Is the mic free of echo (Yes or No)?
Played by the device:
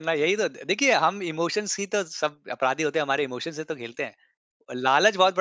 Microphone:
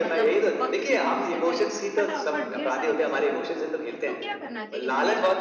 No